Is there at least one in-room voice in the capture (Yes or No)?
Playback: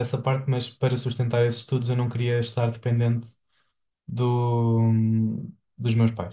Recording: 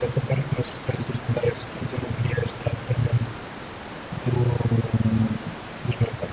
No